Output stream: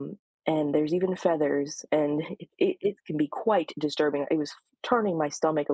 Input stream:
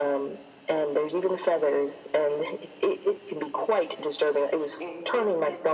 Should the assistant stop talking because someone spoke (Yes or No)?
Yes